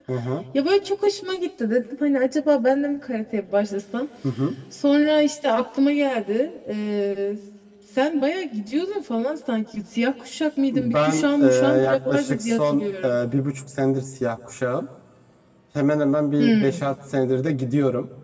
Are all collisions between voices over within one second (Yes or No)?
No